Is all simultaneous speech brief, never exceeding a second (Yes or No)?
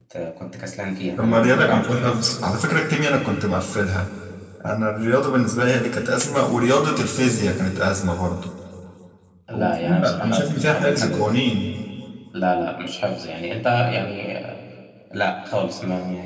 No